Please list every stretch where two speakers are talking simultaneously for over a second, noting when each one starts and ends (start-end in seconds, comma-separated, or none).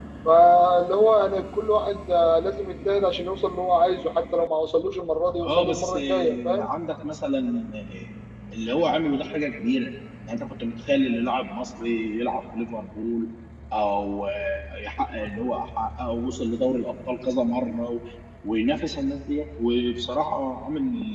5.4-6.7